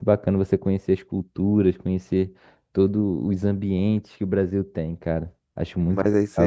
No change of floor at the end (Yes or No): No